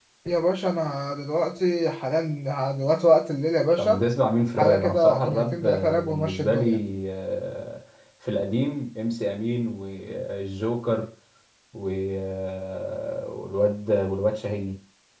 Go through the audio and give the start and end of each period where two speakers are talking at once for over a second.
4.6-6.8

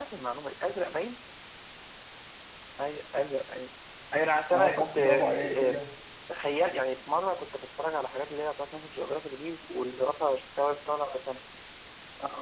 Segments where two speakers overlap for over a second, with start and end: 4.5-5.8

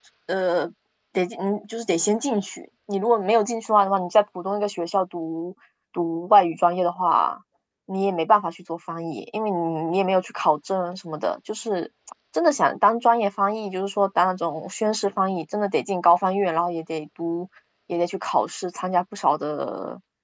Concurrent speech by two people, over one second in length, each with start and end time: none

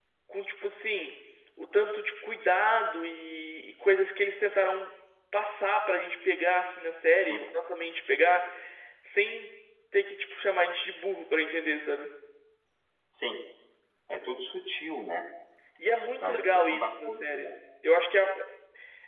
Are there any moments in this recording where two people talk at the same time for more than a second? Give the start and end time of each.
16.2-17.5

